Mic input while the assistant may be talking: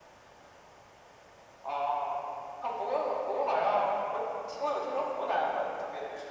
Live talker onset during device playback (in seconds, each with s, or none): none